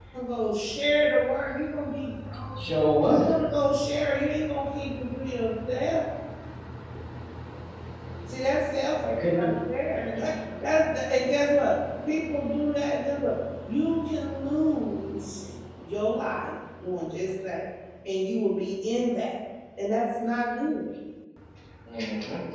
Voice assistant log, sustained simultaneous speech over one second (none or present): none